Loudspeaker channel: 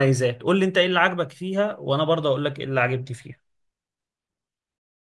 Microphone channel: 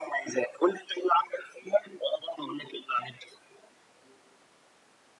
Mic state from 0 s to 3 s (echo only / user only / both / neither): echo only